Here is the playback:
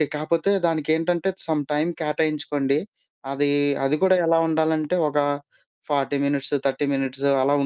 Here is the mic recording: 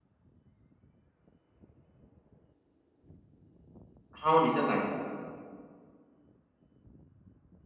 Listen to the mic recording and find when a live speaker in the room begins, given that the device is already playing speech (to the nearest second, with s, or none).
4 s